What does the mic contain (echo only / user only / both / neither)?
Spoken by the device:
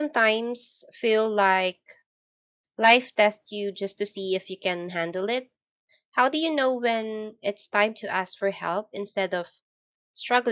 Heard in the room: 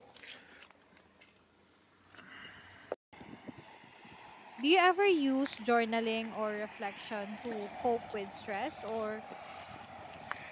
user only